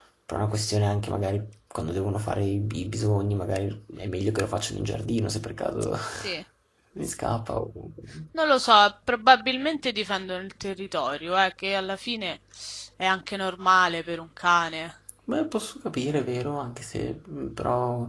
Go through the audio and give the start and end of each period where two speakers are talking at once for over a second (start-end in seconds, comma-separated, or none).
none